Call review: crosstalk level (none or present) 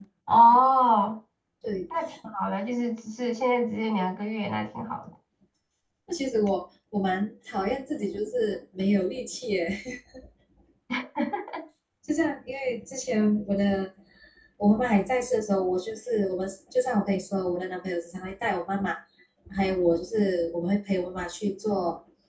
none